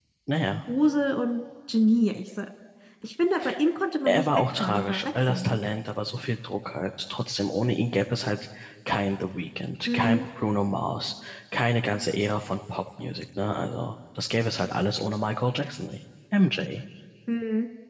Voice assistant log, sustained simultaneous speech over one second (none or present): present